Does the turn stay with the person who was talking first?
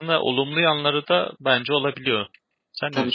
No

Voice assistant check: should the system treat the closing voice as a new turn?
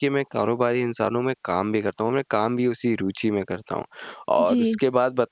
No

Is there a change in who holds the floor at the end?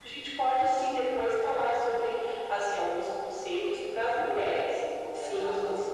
Yes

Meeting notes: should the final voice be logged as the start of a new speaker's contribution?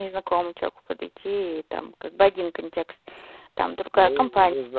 Yes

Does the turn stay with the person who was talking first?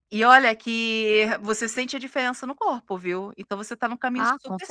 No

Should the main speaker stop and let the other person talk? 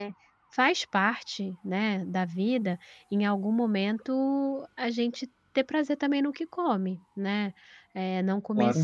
No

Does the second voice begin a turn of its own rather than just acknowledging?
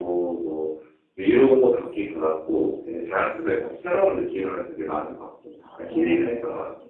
Yes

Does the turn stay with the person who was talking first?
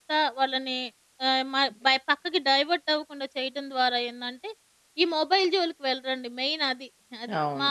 No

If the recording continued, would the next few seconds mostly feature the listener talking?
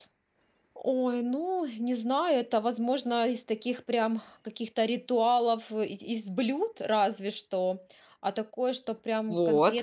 Yes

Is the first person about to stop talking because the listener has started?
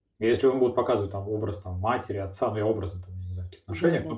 No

